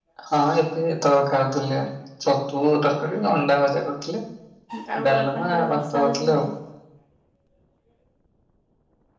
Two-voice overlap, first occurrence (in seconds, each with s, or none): 5.0 s